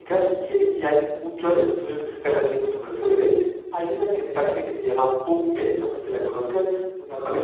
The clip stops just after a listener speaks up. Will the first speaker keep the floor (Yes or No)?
Yes